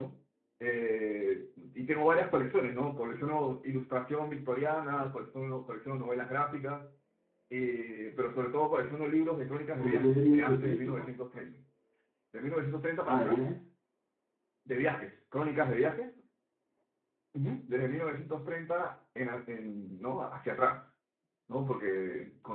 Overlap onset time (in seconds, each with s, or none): 9.8 s